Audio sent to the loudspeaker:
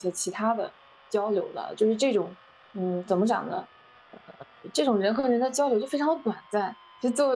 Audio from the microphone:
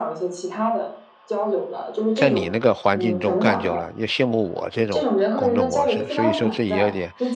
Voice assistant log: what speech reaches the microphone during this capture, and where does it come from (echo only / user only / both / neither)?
both